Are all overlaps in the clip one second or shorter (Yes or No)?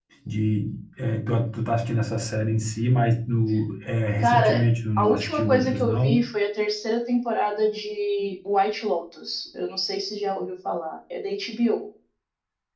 No